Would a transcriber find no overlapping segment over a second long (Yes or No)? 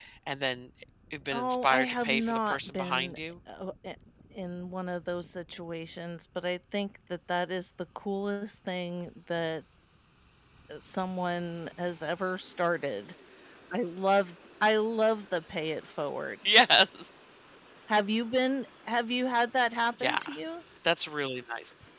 No